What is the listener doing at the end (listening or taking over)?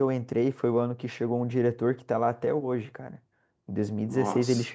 listening